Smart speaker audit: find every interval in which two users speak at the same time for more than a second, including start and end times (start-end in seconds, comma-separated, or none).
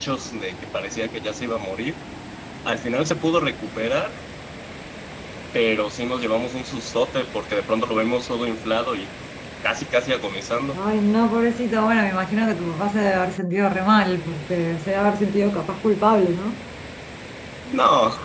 none